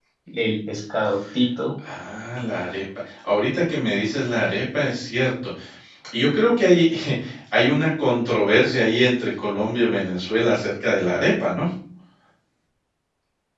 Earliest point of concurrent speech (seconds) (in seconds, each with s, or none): none